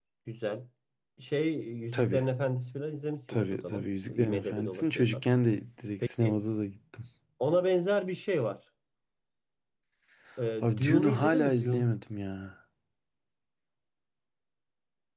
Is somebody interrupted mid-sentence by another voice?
Yes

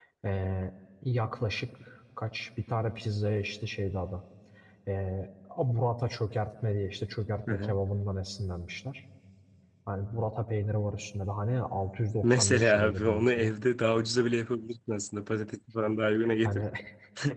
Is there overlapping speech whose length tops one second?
Yes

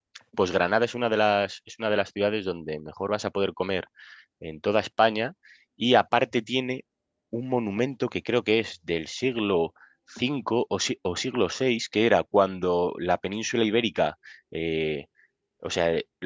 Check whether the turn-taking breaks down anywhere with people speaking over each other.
No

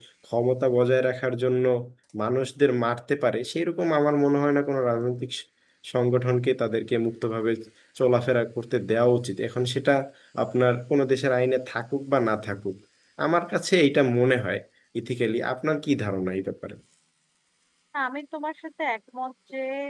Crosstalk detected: No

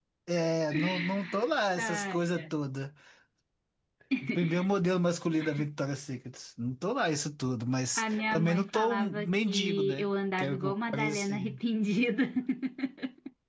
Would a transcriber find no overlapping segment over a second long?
No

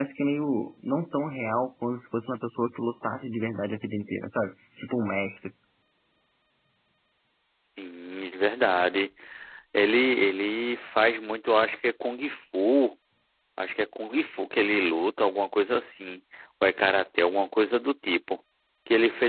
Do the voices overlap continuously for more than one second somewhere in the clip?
No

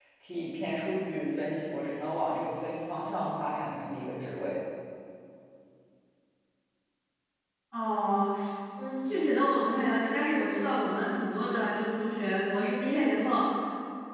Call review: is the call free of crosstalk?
Yes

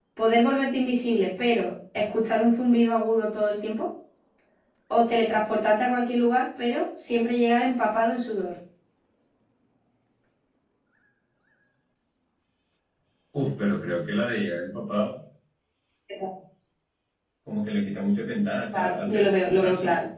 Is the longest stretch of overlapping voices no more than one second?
No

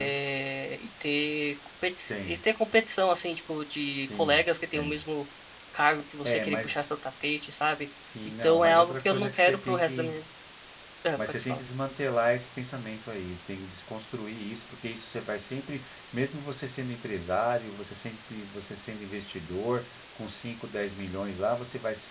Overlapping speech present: Yes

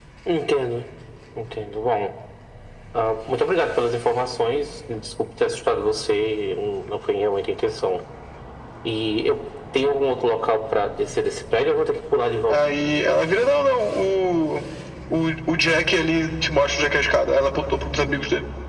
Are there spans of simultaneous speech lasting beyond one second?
No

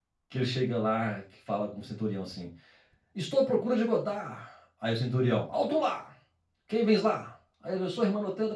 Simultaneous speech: No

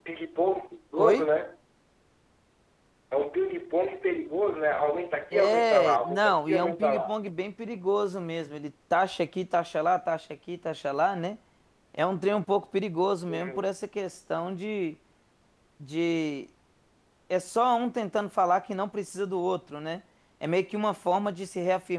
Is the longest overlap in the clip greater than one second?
Yes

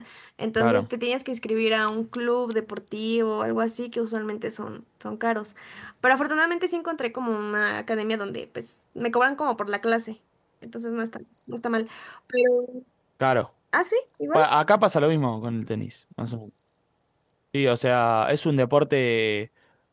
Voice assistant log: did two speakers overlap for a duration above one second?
No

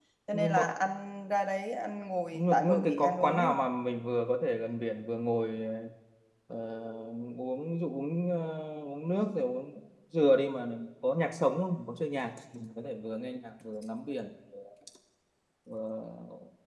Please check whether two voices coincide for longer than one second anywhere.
Yes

